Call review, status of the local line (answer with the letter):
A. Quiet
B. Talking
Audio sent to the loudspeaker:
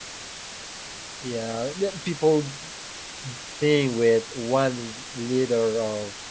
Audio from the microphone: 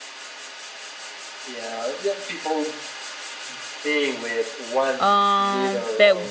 B